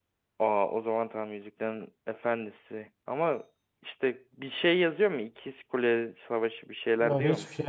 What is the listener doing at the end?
taking over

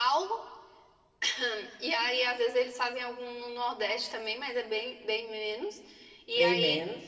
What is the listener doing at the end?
listening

